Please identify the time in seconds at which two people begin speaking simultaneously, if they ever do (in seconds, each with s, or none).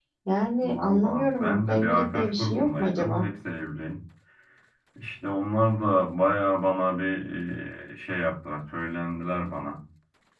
0.6 s